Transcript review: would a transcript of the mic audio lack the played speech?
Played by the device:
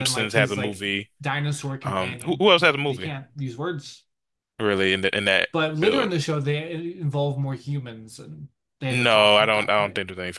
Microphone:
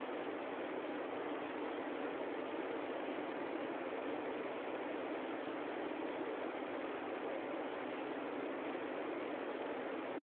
Yes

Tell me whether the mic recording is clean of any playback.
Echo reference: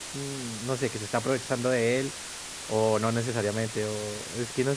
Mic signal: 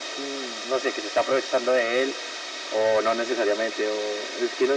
No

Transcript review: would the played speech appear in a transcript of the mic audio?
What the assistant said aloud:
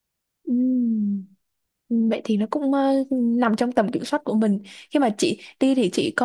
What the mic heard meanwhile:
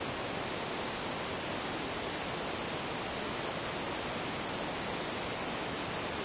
No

